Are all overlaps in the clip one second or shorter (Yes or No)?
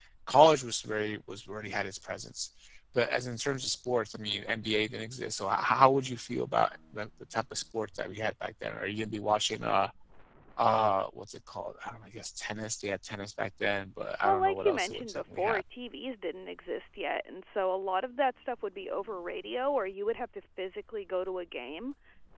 No